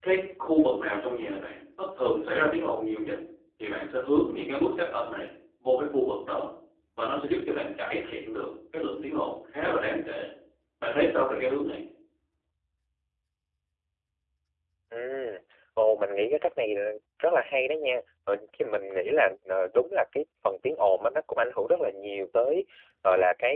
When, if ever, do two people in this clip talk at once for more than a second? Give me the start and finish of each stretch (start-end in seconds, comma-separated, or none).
none